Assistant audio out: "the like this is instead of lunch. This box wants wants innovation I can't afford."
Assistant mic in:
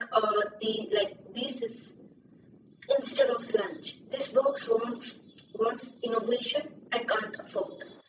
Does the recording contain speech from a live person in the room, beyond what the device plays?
No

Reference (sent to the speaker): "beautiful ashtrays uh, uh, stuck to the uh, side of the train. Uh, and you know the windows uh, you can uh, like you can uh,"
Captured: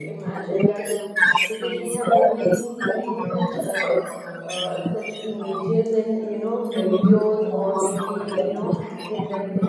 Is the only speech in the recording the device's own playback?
No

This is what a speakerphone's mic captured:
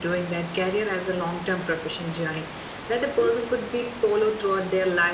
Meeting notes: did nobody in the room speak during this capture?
Yes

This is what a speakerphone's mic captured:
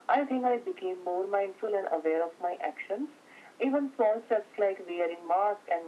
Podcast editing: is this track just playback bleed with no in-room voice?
Yes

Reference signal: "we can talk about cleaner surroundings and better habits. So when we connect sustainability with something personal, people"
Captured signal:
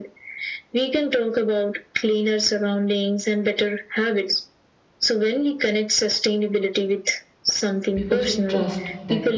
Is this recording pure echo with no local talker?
No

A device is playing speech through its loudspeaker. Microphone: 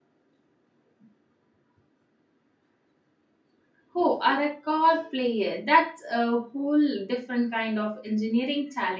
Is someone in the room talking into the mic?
Yes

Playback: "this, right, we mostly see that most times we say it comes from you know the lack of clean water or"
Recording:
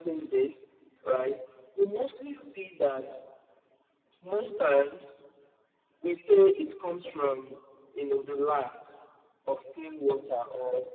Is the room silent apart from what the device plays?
Yes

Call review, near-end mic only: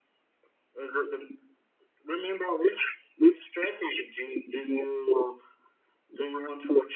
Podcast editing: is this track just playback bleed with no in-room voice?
Yes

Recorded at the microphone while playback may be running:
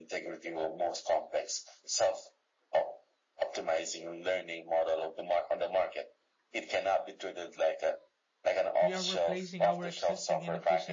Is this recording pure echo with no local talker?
No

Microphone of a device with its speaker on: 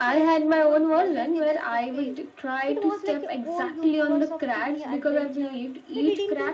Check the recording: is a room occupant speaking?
Yes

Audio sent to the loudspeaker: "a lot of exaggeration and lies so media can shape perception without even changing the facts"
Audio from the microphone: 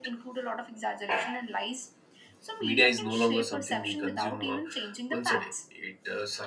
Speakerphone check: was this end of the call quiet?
No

